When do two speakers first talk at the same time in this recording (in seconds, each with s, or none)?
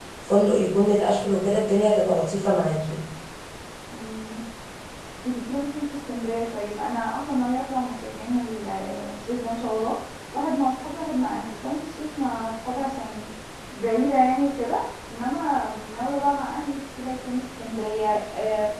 none